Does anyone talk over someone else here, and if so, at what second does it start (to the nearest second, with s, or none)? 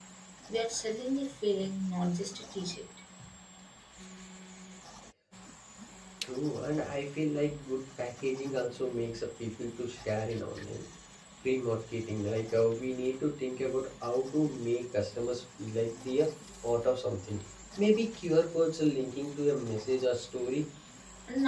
none